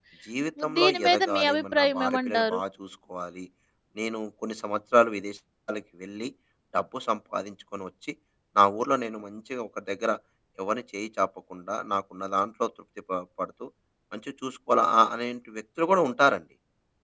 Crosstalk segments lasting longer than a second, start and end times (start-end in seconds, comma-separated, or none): 0.8-2.6